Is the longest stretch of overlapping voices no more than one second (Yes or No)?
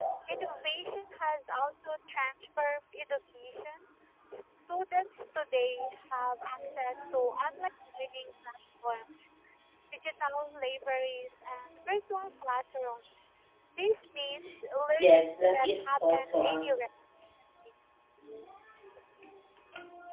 No